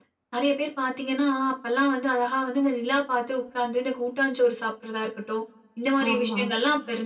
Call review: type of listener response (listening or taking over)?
listening